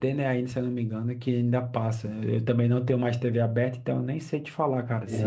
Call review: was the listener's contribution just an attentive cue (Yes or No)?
No